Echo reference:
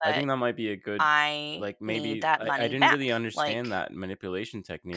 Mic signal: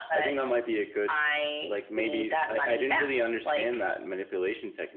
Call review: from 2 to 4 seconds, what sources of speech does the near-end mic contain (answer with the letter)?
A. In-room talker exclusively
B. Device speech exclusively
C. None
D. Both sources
B